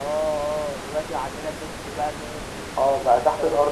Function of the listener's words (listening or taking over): taking over